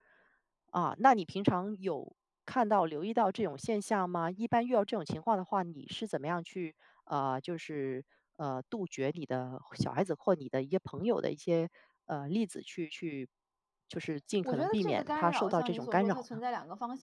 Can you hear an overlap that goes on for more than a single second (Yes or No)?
Yes